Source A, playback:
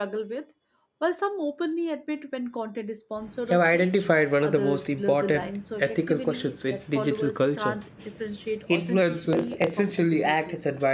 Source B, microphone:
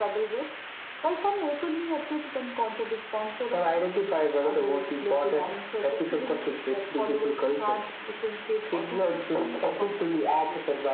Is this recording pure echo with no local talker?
Yes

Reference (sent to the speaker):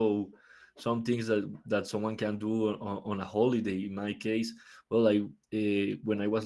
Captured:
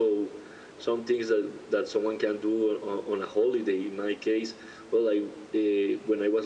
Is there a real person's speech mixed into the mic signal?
No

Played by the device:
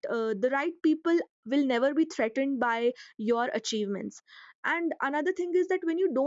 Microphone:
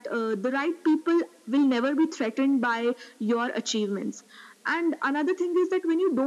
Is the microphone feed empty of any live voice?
Yes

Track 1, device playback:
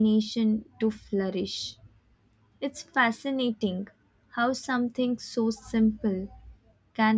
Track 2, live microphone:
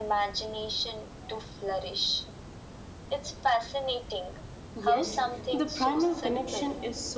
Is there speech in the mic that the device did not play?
Yes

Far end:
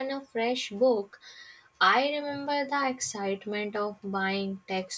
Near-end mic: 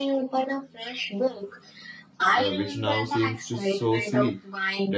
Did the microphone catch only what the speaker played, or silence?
No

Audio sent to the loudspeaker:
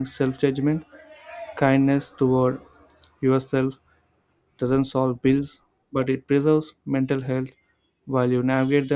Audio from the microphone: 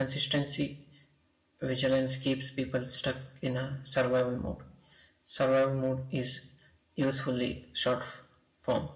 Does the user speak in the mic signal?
Yes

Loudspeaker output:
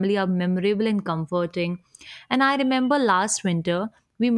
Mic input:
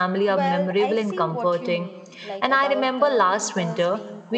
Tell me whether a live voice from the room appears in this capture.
Yes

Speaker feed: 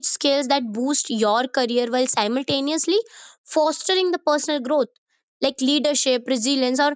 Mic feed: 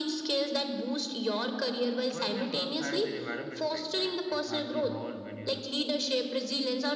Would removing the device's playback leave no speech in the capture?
No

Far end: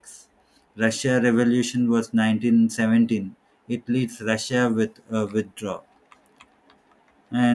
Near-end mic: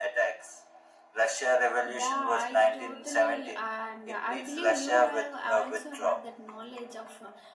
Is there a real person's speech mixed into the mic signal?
Yes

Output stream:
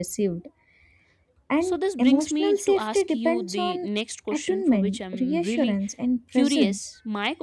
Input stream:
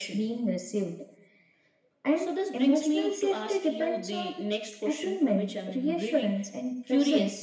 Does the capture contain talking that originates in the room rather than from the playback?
No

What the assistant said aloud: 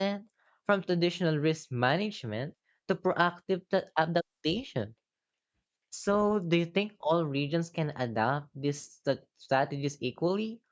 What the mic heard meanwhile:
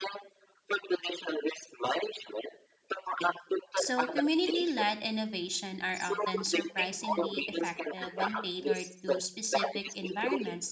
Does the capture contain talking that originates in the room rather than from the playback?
Yes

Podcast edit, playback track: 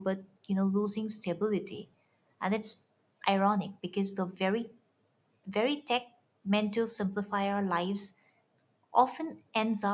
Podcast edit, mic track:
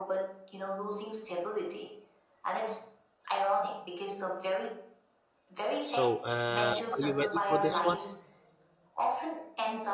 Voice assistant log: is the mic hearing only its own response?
No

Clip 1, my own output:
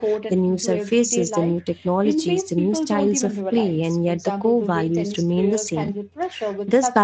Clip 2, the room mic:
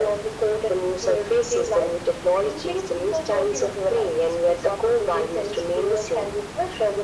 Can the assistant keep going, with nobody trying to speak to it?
Yes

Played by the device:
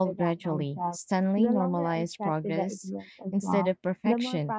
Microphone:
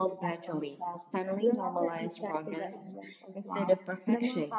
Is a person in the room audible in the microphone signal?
No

